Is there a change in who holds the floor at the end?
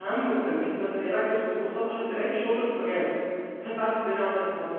No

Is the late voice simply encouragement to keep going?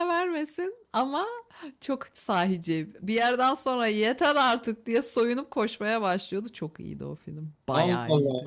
No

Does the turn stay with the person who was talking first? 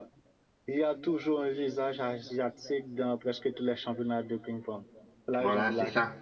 No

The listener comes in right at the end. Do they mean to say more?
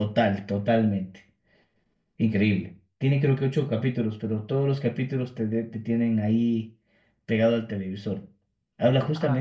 No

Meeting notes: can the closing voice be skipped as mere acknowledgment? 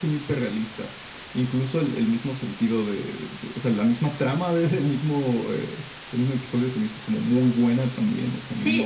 No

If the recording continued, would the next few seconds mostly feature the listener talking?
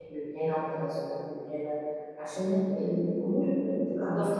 Yes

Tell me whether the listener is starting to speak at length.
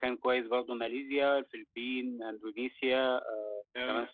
No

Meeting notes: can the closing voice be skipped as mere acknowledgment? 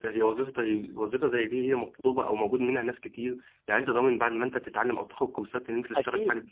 No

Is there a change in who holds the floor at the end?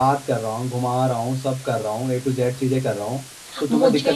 Yes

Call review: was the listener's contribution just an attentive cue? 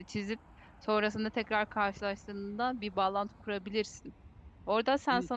No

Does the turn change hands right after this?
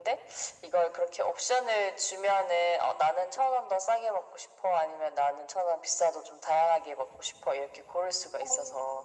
Yes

